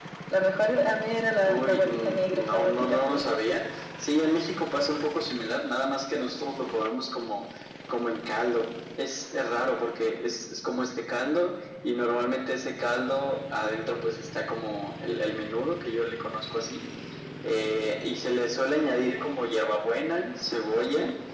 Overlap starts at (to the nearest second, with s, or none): 1 s